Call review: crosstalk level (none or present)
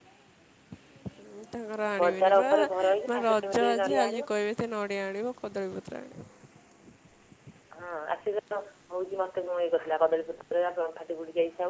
present